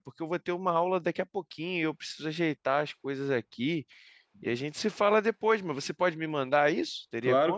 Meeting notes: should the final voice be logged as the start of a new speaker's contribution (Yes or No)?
Yes